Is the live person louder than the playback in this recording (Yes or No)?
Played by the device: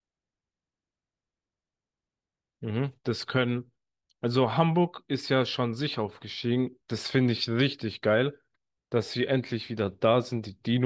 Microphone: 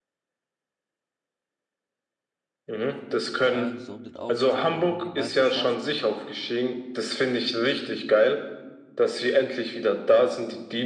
No